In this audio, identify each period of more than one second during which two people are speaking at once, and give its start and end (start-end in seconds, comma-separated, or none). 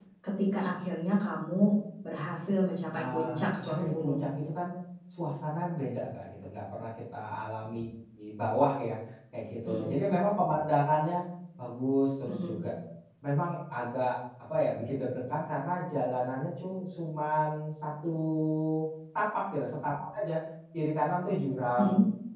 2.9-4.3